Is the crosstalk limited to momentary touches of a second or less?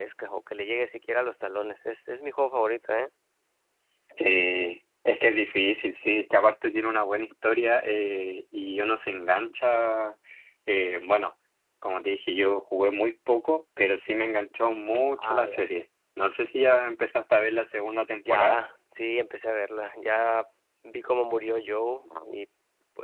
Yes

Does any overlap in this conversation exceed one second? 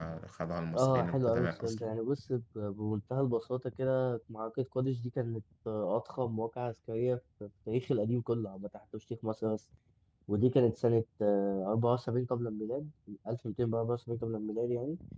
Yes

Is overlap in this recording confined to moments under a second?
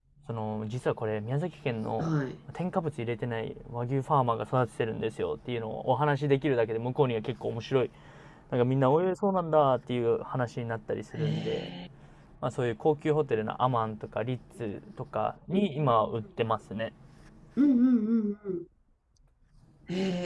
Yes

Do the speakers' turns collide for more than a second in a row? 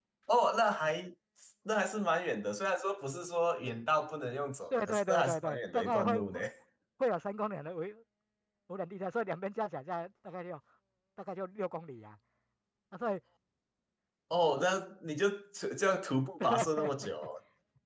Yes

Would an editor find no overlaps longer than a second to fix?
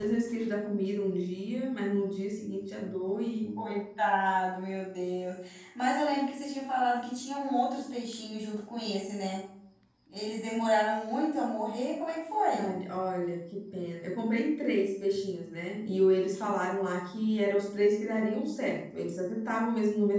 Yes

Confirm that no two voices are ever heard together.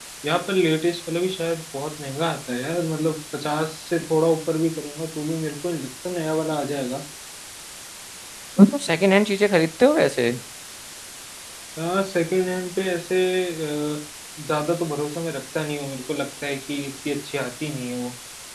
Yes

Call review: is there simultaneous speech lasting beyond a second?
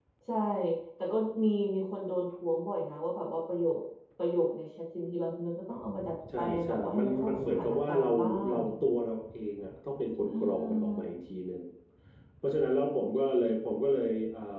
Yes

